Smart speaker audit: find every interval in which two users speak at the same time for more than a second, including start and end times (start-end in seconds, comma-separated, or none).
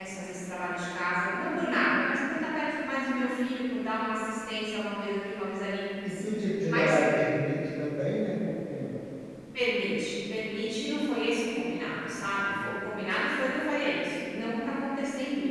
none